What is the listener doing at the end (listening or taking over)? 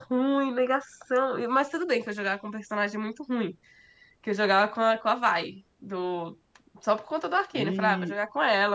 listening